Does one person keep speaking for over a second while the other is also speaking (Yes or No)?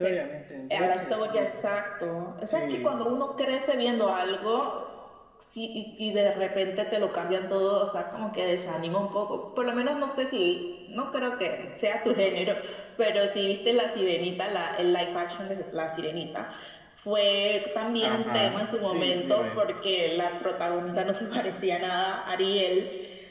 Yes